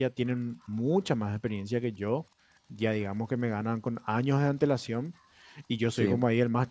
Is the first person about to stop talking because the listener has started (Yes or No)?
No